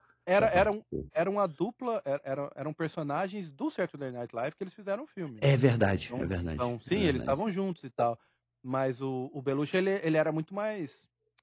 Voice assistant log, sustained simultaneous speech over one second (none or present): present